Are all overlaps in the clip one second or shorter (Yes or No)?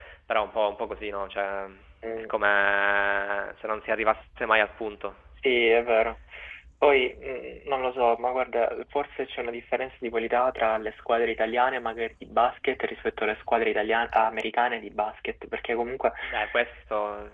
Yes